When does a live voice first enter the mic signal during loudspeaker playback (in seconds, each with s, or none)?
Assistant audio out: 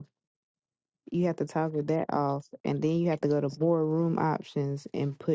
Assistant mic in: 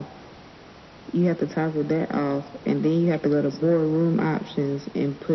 none